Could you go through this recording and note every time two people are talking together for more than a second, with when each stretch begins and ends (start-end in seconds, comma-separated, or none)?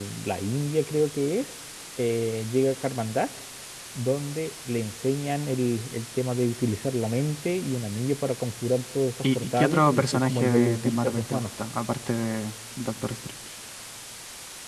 9.2-11.5